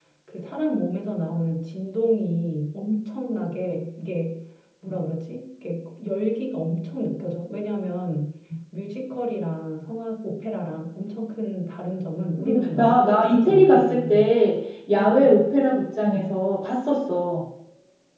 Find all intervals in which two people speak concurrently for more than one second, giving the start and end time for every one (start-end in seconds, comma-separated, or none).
12.4-14.3